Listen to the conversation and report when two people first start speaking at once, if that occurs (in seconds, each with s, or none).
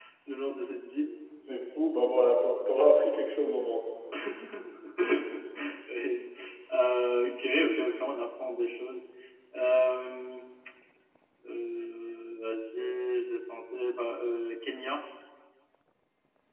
none